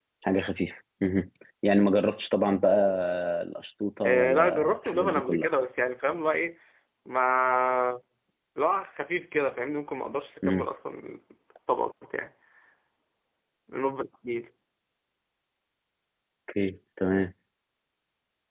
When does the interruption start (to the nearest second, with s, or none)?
4 s